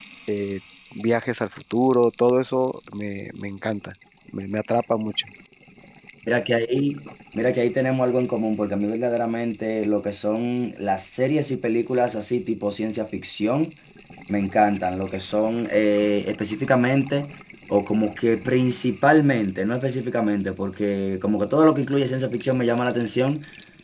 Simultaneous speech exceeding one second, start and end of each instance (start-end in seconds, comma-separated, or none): none